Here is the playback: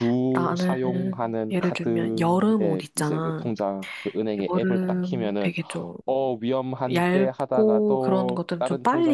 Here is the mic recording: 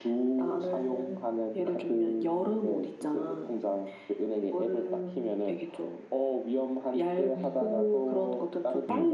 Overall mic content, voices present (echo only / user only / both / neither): both